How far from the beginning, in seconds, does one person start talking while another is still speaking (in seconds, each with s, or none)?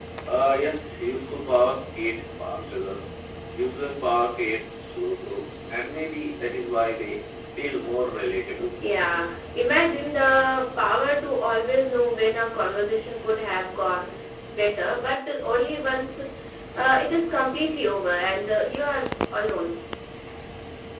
none